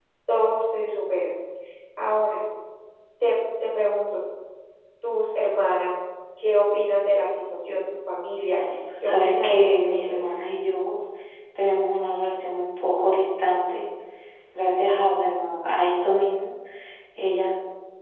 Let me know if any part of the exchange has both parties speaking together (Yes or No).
Yes